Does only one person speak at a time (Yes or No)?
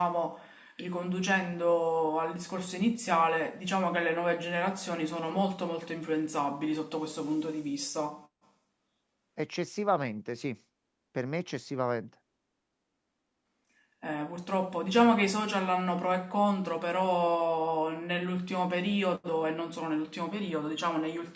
Yes